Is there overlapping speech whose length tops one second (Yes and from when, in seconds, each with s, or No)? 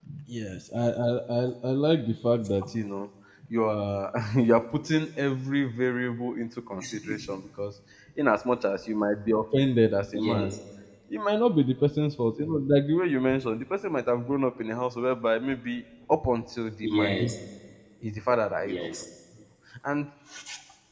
No